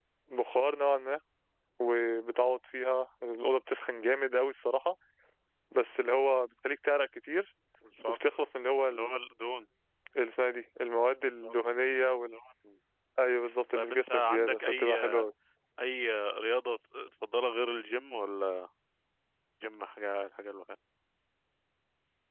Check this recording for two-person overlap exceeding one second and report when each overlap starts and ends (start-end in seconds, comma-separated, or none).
13.7-14.9